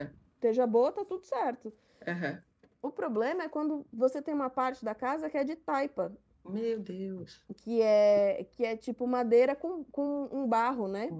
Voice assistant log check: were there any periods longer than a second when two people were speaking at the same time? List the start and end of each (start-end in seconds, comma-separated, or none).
none